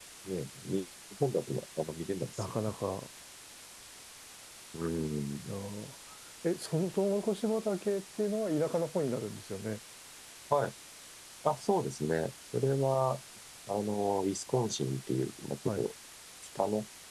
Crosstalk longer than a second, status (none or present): none